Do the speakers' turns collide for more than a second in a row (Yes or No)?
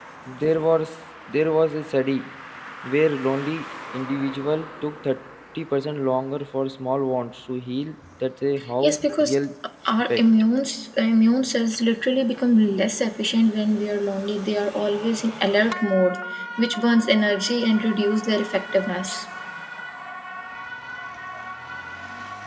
No